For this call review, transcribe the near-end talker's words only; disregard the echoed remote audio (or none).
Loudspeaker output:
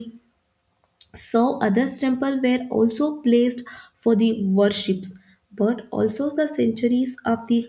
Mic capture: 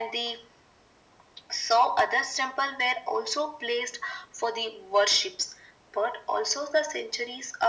none